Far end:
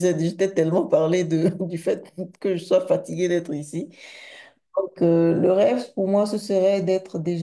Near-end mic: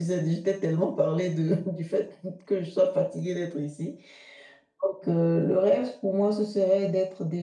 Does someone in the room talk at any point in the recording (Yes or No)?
No